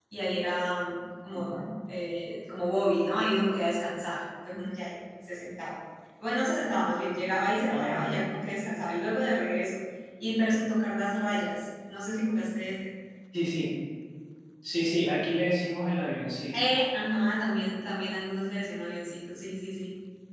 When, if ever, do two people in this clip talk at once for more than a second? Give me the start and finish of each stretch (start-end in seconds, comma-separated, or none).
none